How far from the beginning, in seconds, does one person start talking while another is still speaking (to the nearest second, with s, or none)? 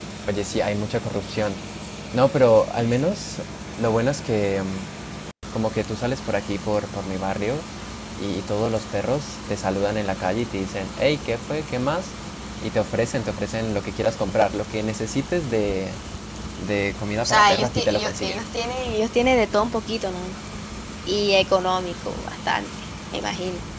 17 s